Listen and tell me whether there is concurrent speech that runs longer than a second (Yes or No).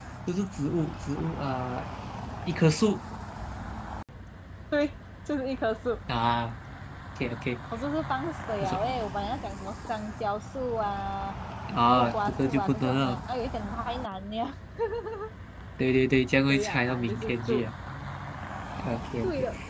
Yes